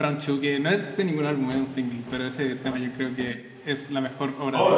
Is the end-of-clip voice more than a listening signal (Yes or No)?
Yes